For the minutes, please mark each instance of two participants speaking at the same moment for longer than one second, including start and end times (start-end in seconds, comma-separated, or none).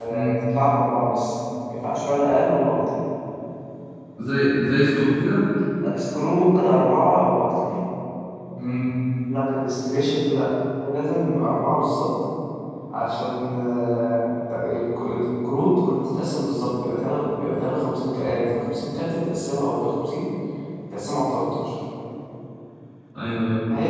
none